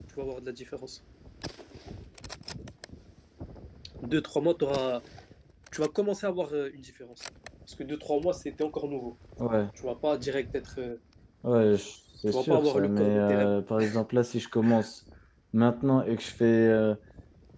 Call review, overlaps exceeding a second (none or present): present